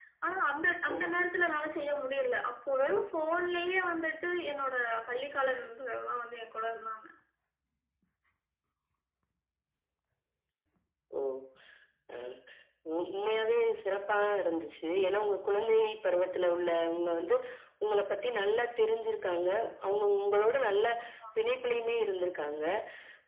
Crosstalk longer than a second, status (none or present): none